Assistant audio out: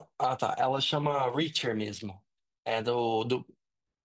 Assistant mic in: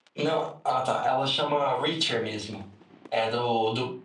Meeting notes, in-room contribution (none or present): none